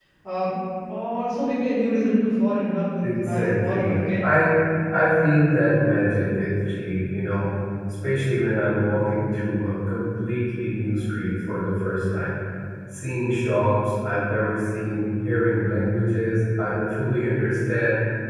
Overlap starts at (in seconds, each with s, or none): 3.0 s